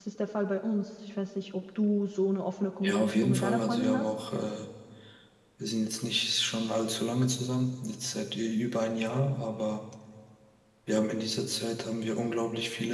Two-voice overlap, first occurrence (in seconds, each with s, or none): 2.8 s